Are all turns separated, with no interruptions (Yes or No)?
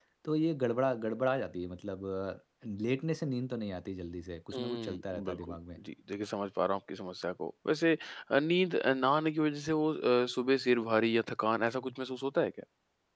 No